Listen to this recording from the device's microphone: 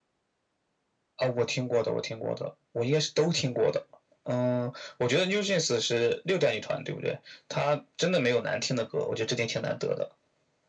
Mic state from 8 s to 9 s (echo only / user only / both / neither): echo only